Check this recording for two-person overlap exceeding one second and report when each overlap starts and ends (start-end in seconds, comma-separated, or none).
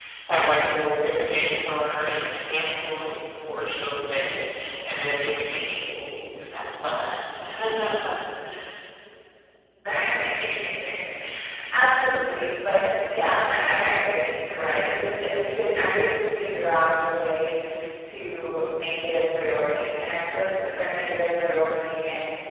none